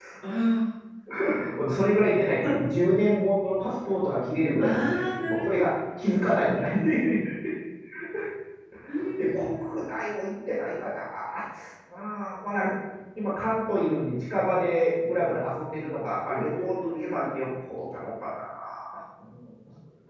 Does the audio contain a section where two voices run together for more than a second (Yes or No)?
Yes